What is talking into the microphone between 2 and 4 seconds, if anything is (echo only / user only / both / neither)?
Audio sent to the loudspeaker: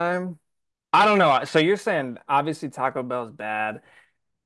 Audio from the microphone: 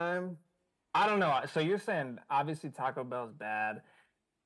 echo only